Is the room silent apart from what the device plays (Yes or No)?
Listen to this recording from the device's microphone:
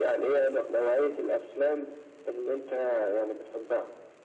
Yes